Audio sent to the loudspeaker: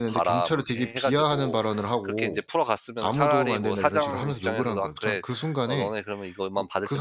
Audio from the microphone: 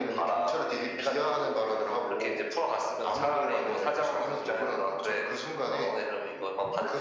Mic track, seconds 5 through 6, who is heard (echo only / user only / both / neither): echo only